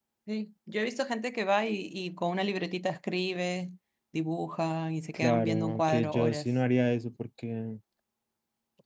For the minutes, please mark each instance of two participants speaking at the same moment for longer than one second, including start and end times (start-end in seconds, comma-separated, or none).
5.1-6.5